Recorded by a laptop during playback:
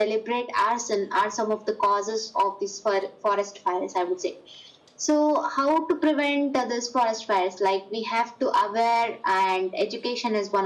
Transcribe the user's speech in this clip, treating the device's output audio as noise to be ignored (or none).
none